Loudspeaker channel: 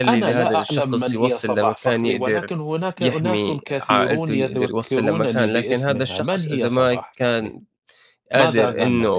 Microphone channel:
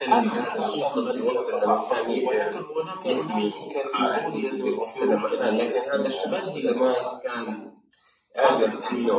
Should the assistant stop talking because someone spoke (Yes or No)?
No